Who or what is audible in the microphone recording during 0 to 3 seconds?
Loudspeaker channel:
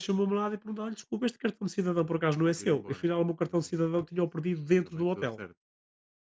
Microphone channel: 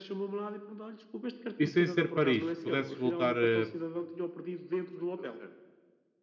both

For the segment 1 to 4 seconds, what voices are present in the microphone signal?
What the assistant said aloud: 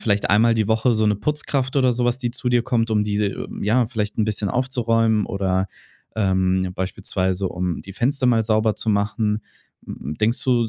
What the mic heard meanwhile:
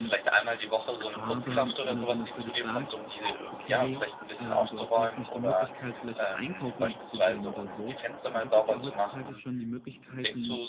both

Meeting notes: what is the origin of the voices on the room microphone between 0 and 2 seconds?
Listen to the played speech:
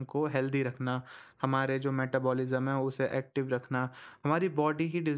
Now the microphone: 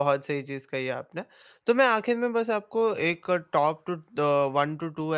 user only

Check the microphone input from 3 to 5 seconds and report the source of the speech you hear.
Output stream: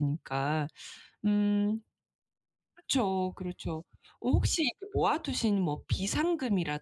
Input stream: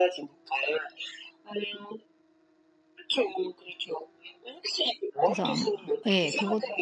echo only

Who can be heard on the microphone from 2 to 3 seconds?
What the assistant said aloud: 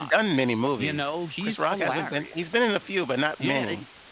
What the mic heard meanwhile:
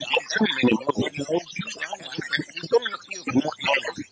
echo only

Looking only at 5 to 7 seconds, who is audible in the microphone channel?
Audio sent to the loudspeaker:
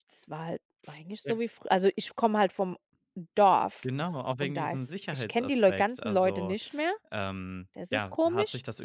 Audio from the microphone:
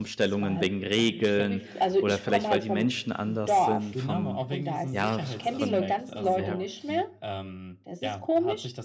both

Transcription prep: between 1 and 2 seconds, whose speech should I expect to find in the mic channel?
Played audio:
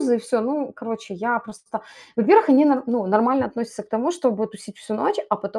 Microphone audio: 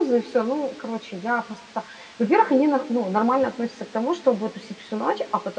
echo only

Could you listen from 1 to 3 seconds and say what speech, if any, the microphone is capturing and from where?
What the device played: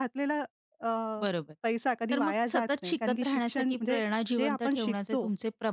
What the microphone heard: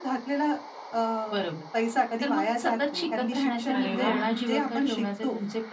echo only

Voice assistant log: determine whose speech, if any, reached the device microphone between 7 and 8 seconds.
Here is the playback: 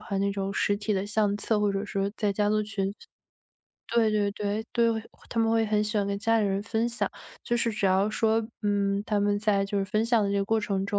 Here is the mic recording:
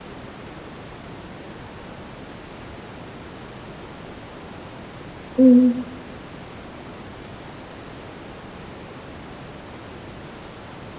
neither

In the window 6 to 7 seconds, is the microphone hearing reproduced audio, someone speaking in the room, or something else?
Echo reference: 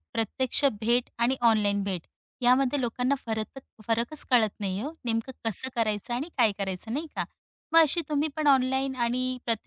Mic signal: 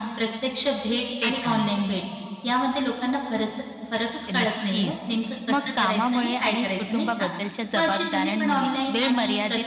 both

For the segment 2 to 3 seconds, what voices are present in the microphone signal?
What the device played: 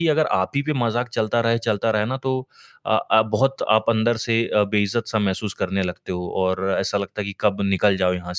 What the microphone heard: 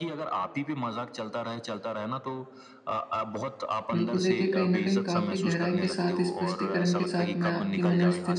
echo only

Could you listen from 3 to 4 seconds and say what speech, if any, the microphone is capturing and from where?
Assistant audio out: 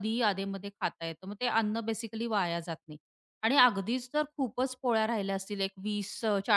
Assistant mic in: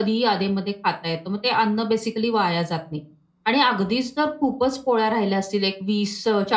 echo only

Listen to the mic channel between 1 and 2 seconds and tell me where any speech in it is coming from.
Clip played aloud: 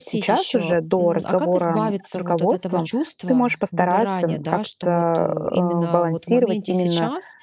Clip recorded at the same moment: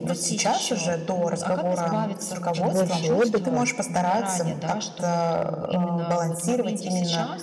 echo only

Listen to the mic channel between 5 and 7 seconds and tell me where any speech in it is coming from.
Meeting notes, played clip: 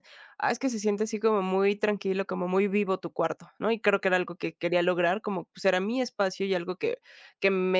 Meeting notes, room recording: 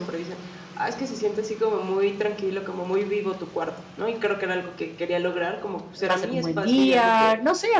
both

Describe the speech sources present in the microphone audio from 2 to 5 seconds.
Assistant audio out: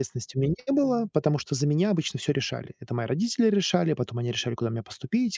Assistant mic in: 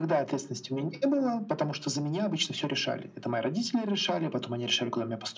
echo only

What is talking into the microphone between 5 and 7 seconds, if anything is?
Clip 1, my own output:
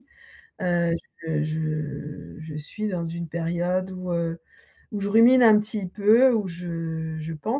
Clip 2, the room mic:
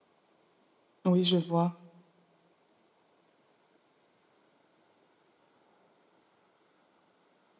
neither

